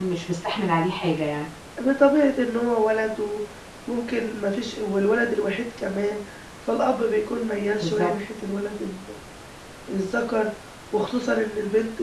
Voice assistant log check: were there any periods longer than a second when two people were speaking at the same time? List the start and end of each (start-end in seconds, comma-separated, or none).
none